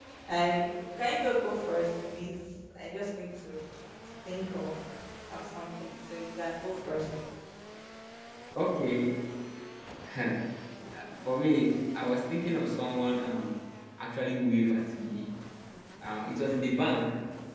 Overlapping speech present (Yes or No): No